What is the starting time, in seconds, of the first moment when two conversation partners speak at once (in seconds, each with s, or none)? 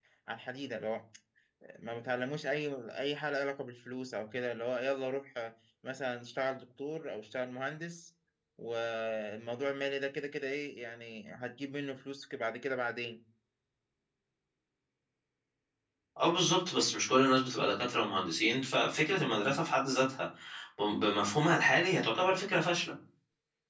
none